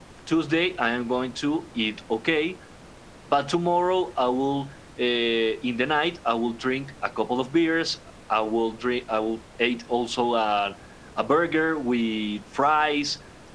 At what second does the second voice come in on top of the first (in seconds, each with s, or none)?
none